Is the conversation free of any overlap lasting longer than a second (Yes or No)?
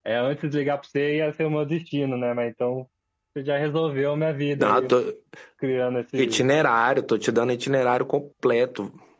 Yes